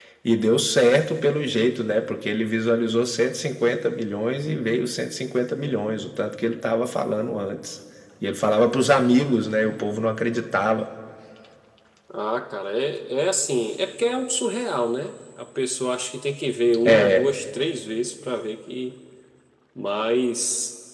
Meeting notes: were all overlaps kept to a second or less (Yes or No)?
Yes